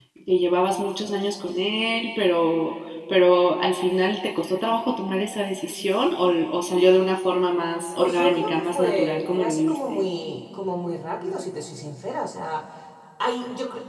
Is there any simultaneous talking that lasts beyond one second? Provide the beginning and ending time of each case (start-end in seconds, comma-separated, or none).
8.0-9.8